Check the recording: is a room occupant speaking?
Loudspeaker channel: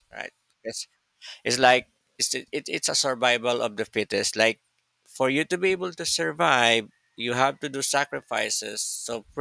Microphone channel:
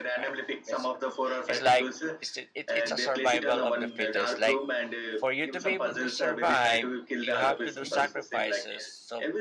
Yes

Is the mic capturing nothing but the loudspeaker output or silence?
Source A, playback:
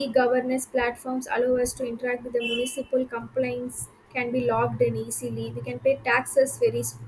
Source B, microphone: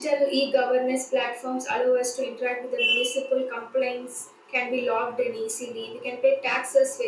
Yes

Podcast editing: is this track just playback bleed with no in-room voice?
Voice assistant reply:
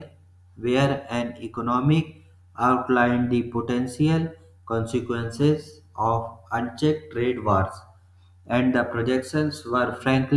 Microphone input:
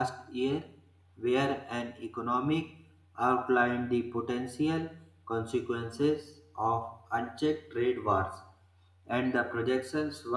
Yes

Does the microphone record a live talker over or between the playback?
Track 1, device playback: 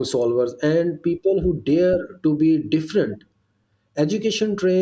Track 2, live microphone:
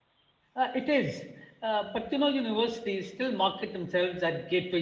Yes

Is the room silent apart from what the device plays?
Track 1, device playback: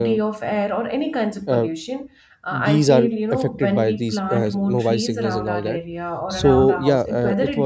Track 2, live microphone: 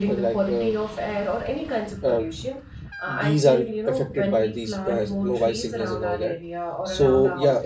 Yes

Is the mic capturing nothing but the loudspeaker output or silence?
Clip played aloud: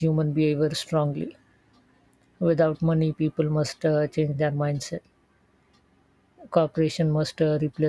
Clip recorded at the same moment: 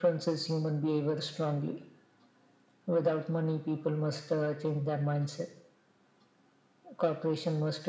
Yes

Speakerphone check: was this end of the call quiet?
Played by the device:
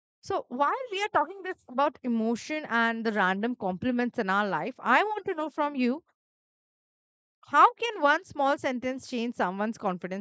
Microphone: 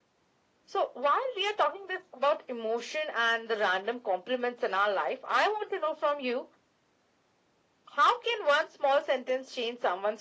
Yes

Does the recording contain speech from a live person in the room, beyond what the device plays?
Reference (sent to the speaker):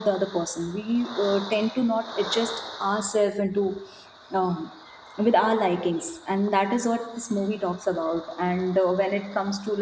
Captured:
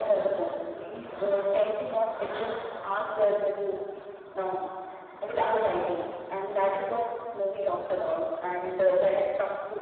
No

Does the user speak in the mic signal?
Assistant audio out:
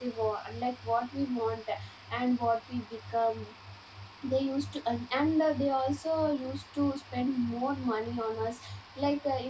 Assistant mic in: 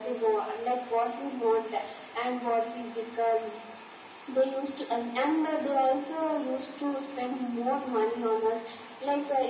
No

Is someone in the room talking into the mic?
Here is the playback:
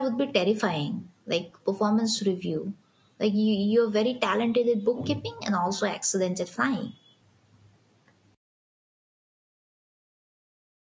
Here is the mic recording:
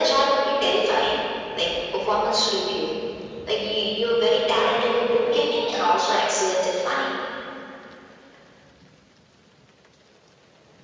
No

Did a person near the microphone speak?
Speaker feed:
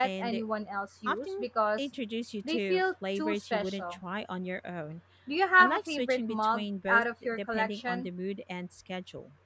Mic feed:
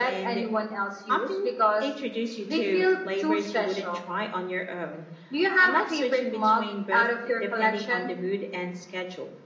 No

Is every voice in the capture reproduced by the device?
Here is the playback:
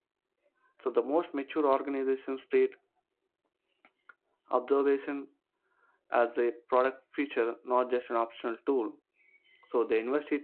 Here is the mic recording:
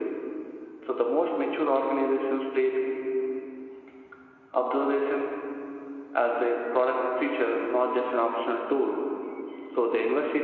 Yes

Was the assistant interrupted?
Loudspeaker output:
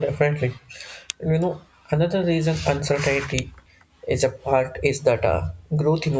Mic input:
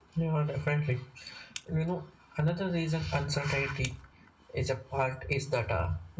No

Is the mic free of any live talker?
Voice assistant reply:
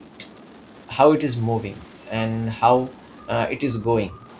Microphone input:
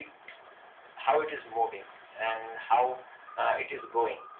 Yes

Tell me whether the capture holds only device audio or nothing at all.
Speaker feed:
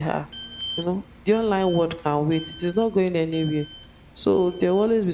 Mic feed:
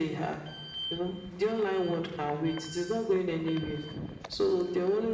Yes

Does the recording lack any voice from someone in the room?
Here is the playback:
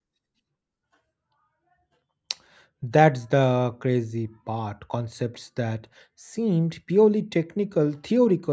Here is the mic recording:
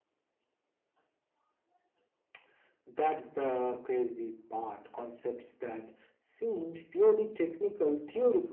Yes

